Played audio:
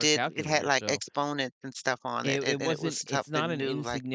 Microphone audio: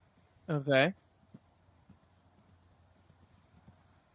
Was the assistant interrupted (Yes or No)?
Yes